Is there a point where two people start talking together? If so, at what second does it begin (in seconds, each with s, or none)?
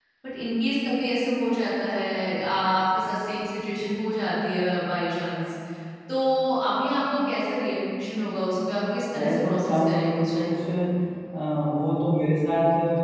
9.1 s